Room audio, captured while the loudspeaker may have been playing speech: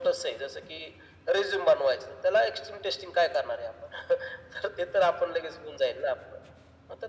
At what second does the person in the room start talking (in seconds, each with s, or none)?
none